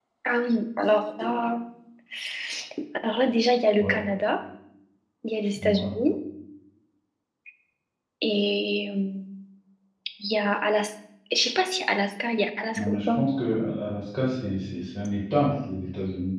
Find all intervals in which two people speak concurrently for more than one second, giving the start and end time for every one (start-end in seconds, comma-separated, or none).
none